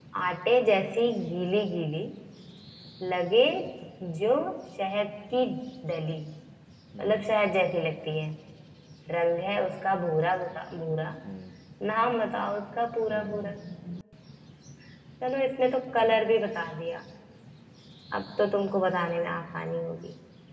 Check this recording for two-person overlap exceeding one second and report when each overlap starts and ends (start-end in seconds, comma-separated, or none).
none